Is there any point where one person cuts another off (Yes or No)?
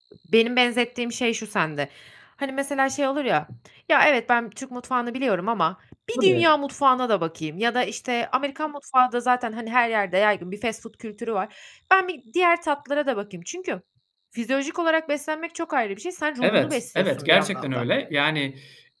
Yes